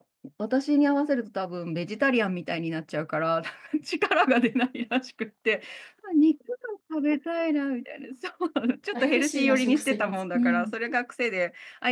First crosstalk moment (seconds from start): 8.9 s

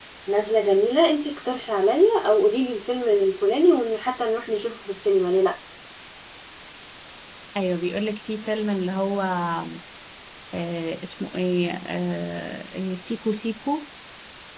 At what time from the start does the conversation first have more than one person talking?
none

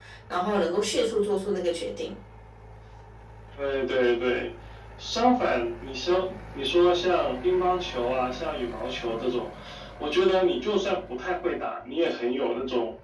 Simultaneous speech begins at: none

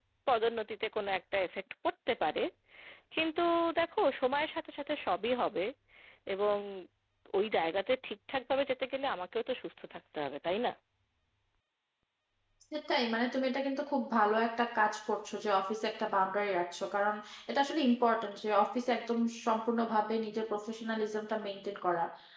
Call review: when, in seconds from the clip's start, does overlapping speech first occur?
none

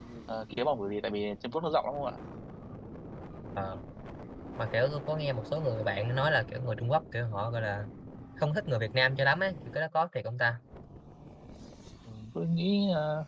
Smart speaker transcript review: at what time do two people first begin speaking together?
none

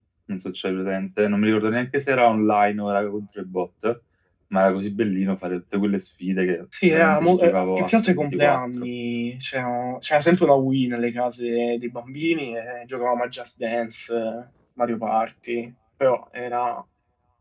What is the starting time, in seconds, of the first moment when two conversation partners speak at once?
6.7 s

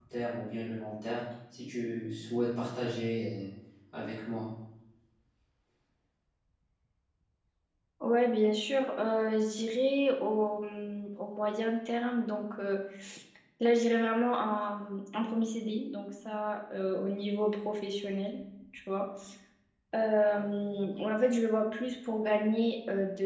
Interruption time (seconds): none

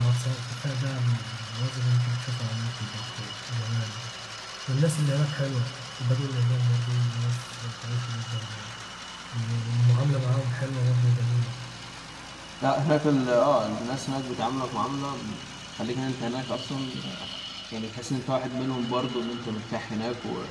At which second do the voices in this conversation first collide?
none

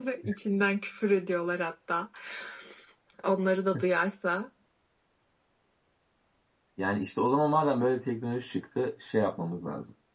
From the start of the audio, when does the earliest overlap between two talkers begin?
none

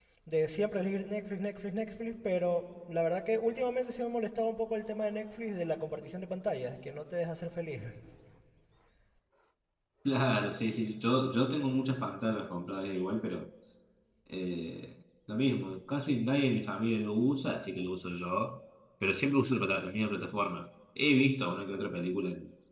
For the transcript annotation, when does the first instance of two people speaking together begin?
none

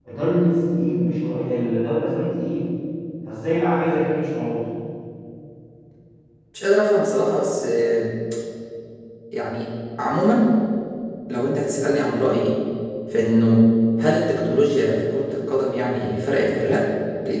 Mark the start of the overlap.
none

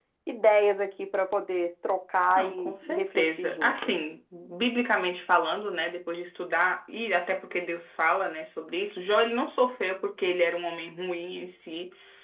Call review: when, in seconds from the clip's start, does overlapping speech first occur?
2.4 s

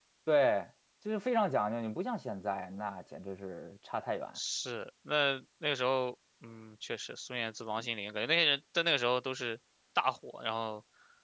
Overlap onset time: none

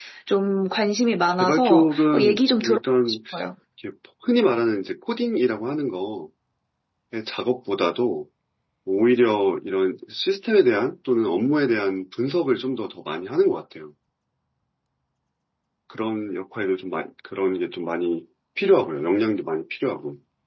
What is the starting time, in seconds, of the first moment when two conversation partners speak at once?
1.4 s

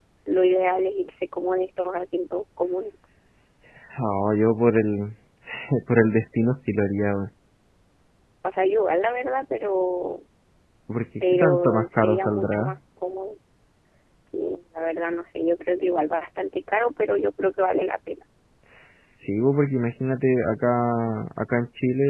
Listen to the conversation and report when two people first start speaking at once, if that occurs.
11.3 s

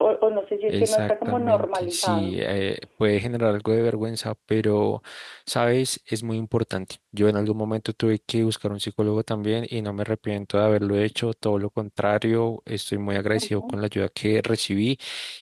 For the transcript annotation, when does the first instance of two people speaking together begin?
0.7 s

